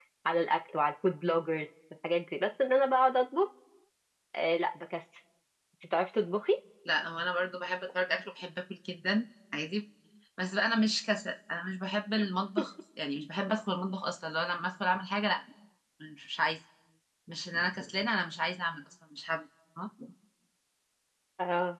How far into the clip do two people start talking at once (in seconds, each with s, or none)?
none